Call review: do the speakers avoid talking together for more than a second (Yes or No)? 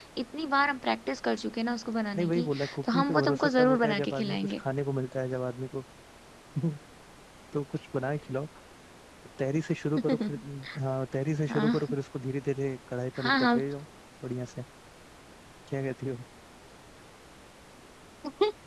No